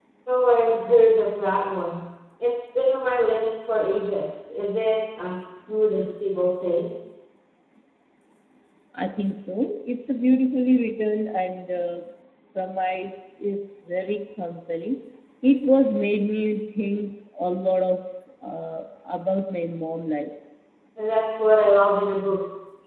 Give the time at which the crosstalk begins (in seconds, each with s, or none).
none